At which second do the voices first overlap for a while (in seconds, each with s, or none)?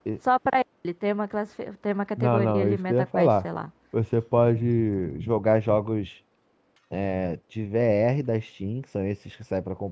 2.2 s